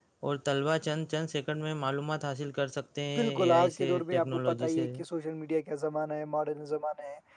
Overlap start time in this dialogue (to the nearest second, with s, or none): 3 s